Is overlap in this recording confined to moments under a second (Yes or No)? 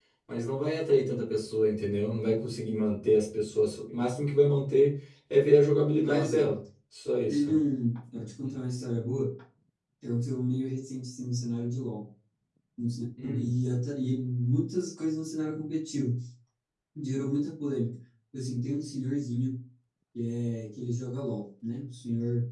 Yes